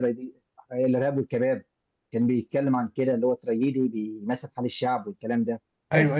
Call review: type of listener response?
listening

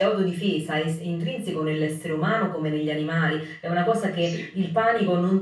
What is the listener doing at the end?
listening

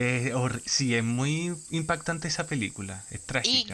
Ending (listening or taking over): taking over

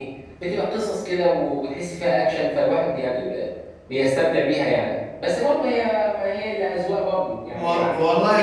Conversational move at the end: taking over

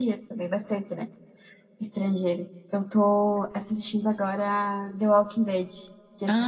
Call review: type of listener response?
taking over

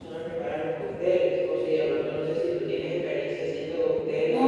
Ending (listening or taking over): taking over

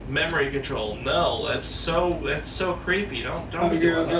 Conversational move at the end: taking over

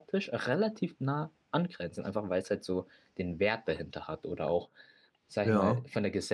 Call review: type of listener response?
listening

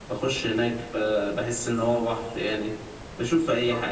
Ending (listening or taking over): listening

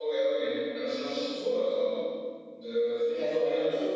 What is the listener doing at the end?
taking over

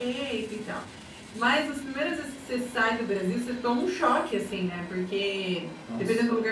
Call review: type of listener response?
listening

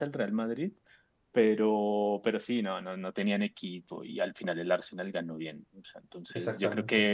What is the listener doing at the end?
listening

